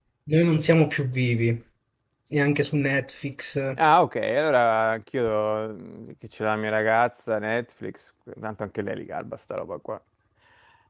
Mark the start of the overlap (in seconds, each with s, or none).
none